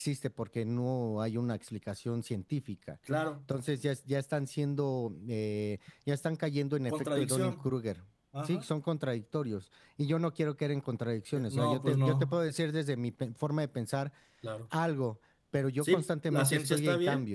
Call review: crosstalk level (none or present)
present